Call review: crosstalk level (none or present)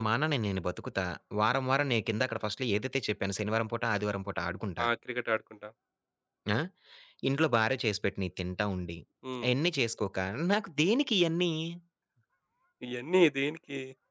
none